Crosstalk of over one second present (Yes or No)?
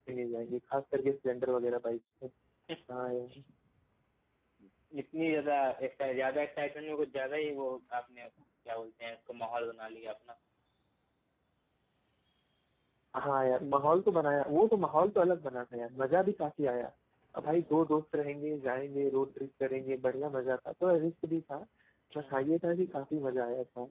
No